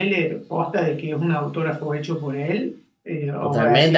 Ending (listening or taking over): taking over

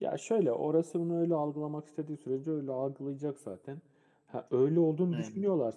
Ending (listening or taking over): listening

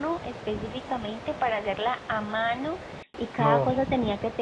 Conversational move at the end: listening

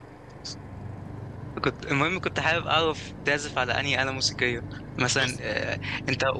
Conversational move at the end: listening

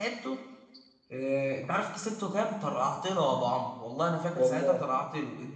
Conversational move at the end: listening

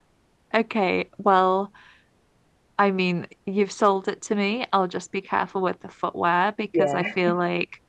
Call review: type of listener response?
listening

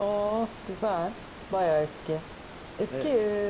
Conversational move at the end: listening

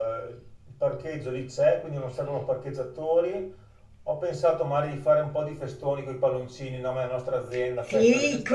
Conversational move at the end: taking over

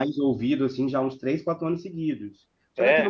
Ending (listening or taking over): listening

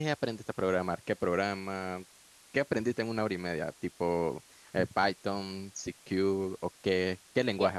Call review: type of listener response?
taking over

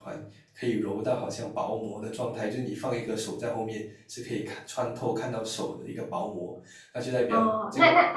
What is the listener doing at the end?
taking over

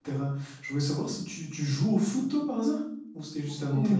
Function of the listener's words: taking over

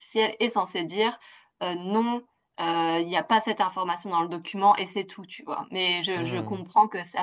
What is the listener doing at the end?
listening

